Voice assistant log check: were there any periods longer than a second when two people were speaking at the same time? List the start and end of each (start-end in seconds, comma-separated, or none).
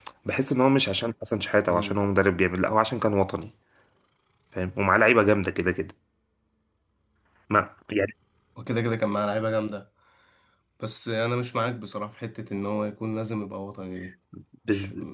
none